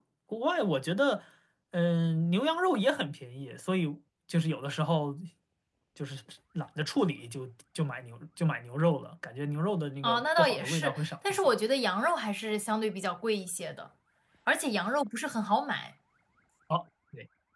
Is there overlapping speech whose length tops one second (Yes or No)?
Yes